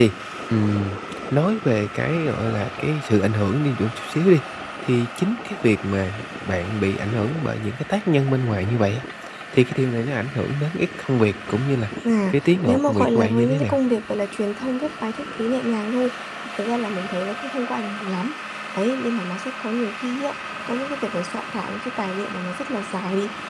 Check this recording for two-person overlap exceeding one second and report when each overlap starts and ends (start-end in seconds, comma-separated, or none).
12.3-13.8